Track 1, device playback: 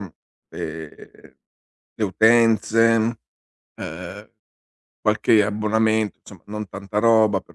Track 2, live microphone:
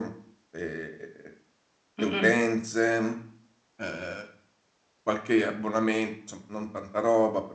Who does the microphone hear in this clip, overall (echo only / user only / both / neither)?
both